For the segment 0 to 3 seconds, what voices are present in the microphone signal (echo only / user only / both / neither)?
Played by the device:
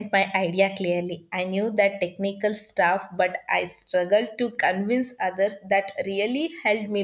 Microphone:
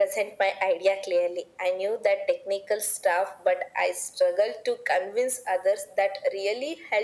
echo only